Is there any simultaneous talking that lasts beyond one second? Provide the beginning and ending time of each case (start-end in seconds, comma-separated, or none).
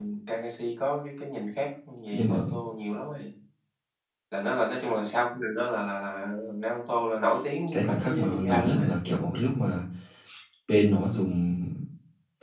7.7-8.9